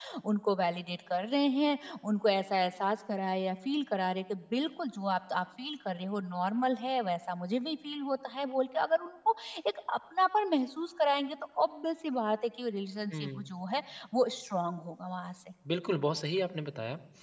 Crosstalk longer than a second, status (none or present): none